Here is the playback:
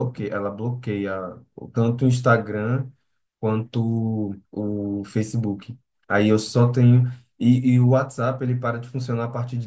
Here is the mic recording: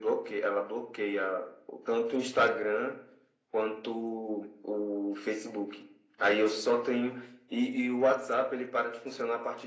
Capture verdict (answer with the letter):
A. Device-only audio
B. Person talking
A